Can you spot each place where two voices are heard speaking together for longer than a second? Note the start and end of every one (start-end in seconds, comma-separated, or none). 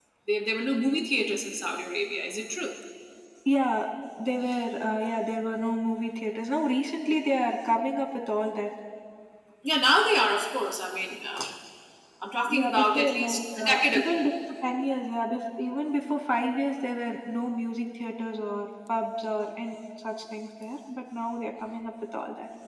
12.6-14.2